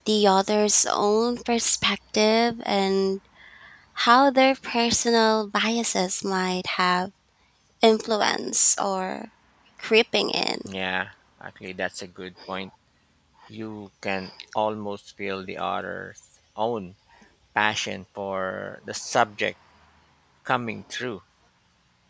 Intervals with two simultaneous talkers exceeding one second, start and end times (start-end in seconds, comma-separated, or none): none